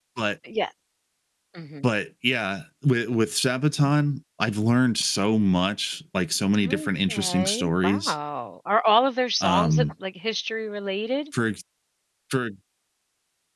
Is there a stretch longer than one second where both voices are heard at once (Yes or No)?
Yes